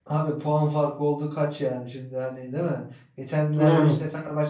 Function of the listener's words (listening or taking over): listening